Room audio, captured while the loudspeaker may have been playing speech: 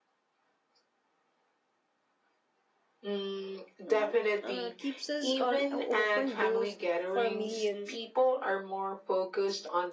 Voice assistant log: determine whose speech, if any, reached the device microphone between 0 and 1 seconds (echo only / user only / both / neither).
neither